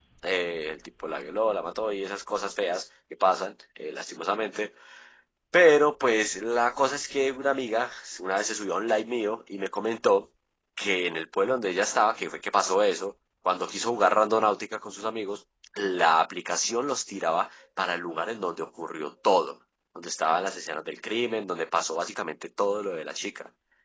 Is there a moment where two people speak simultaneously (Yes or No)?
No